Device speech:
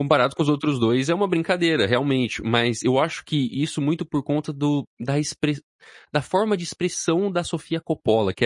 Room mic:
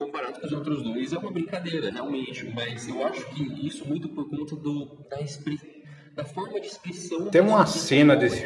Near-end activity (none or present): present